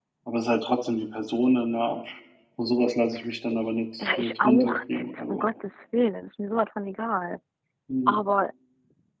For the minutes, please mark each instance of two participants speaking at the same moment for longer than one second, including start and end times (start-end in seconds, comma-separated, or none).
4.0-5.5